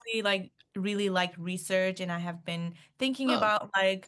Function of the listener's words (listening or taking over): listening